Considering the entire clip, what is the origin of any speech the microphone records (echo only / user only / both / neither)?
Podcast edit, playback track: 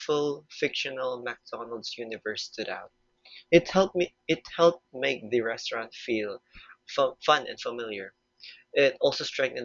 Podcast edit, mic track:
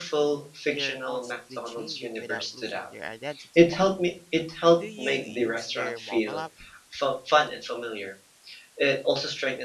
both